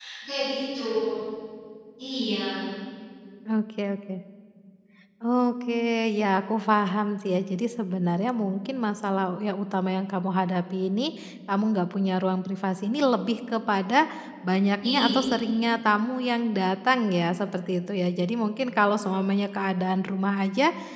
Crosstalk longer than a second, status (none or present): none